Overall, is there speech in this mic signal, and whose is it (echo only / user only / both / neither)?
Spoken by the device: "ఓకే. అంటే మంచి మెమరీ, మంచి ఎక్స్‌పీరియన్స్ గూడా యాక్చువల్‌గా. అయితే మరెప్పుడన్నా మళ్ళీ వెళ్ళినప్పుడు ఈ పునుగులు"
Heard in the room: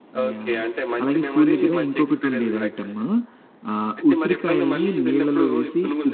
both